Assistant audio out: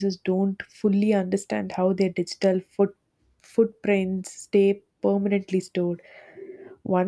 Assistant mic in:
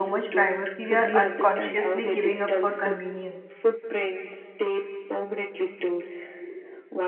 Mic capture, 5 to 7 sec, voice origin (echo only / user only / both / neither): echo only